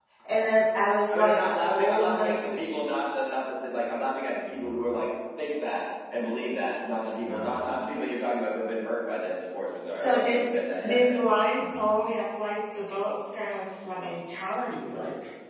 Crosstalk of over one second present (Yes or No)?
Yes